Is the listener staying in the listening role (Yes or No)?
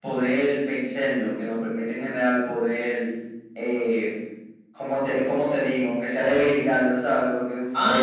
No